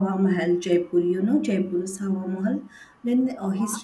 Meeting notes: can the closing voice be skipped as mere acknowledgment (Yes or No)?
Yes